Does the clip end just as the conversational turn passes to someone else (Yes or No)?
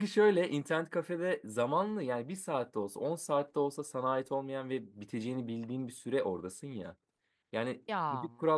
No